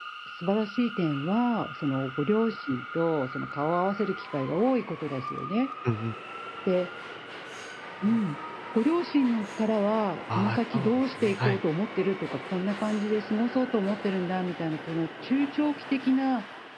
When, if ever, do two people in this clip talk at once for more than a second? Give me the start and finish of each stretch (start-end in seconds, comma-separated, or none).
10.3-11.6